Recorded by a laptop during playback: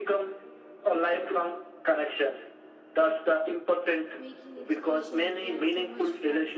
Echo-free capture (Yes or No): No